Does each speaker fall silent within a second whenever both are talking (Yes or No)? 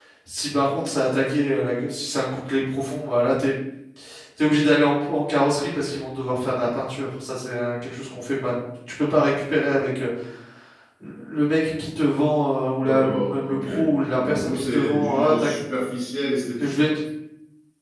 No